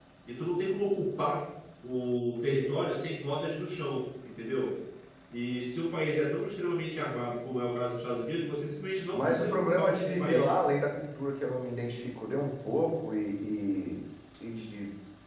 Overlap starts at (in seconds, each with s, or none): 9.1 s